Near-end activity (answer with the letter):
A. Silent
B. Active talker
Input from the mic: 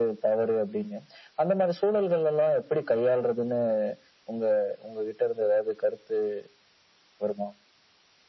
A